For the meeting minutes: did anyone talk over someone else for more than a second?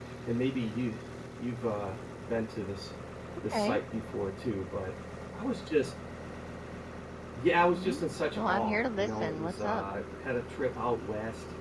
Yes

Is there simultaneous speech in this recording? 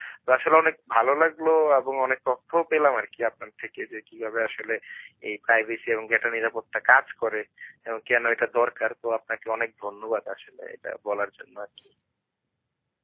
No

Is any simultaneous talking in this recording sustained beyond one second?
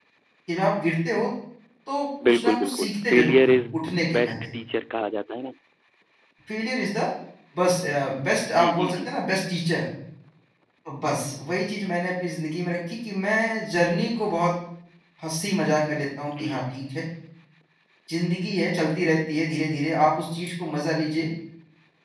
Yes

